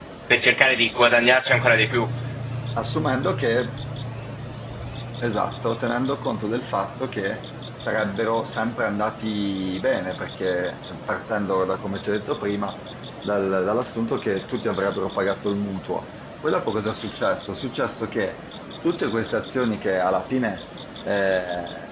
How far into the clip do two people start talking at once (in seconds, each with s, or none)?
none